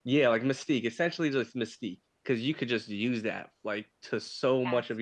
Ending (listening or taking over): listening